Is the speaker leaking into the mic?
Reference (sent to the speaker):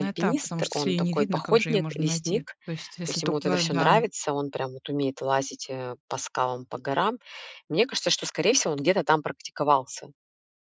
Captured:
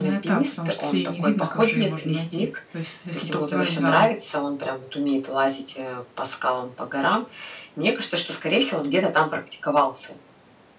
Yes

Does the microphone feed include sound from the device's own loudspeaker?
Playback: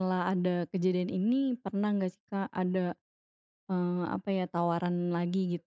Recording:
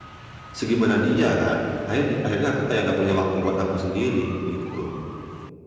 No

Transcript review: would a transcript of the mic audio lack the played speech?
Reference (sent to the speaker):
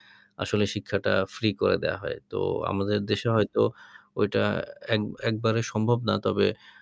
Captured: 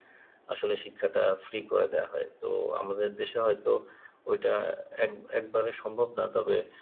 No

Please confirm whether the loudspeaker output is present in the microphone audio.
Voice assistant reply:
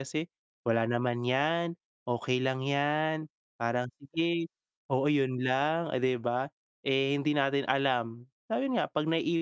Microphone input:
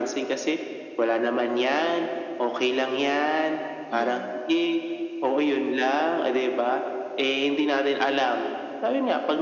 Yes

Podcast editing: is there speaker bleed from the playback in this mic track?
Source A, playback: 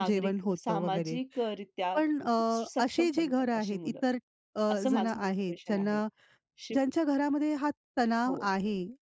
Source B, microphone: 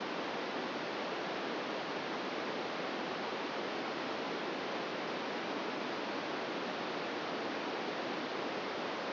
No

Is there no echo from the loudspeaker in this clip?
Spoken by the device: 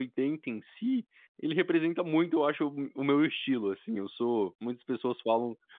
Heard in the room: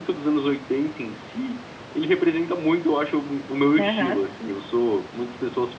No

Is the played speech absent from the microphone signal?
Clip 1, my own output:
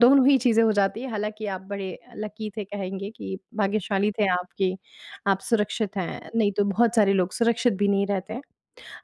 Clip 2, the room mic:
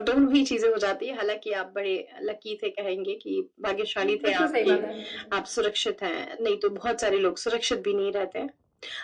No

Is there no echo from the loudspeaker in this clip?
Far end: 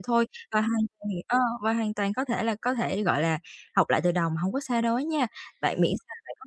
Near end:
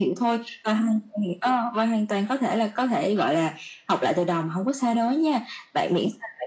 No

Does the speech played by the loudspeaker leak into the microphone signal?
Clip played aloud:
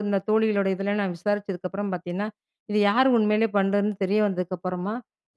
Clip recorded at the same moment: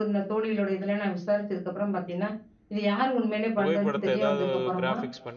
Yes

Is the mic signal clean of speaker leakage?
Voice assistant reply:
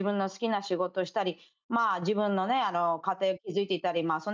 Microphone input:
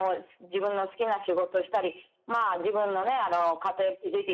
No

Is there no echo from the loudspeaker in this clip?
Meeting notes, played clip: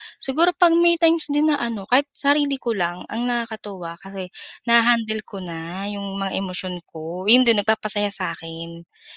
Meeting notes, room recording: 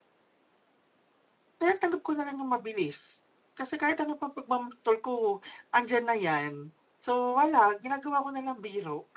Yes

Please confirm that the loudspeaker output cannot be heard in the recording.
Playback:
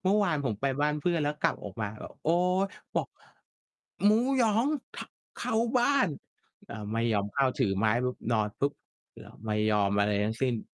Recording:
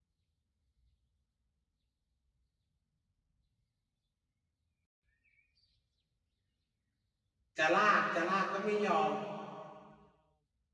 Yes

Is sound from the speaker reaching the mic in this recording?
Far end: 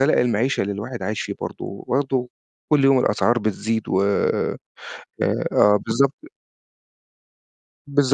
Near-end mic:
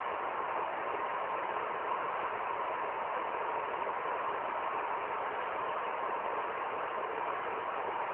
No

